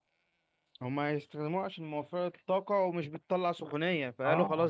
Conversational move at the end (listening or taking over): listening